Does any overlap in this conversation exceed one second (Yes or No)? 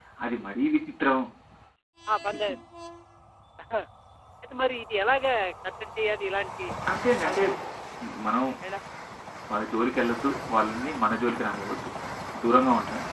No